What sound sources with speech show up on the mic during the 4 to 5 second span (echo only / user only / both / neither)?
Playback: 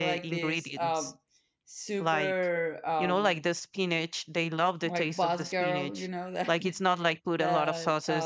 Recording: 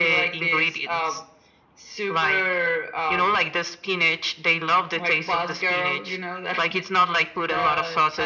echo only